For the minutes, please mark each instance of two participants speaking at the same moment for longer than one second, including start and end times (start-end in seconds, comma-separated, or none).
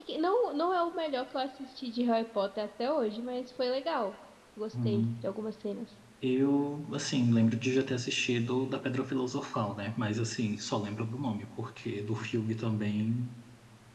none